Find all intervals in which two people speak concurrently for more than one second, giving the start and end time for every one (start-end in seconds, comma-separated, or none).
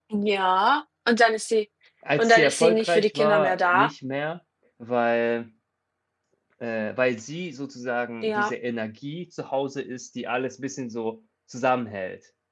2.2-3.9